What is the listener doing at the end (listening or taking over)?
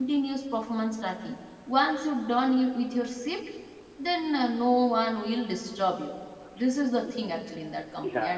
taking over